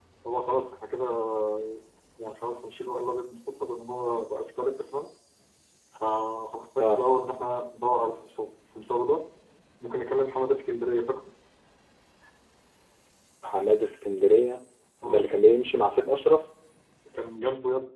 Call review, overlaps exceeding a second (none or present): none